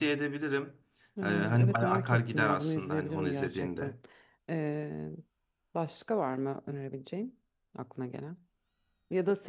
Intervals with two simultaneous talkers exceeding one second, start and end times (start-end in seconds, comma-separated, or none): 1.2-3.9